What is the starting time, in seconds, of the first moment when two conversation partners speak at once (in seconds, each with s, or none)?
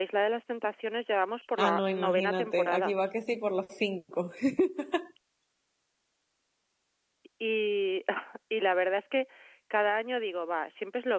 1.6 s